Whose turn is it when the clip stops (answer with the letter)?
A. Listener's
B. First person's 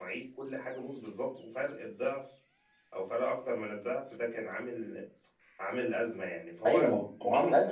A